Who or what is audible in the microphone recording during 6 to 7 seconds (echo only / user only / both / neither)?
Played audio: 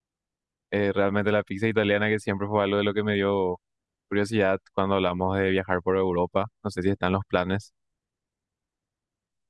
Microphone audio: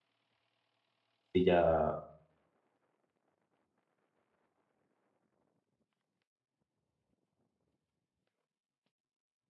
neither